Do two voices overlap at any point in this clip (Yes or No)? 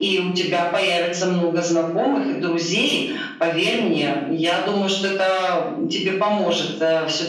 No